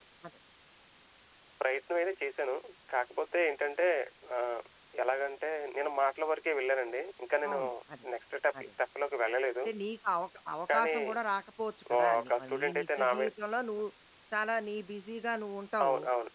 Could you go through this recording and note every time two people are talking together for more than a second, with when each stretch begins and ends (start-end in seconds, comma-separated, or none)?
12.0-13.3